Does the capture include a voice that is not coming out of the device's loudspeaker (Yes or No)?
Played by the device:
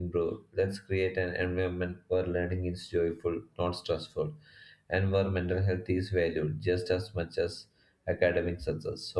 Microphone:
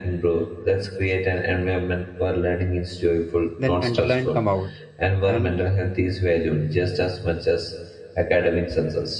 Yes